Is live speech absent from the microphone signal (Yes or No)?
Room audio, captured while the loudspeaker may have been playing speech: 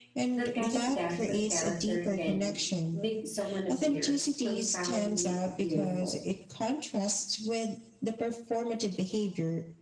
No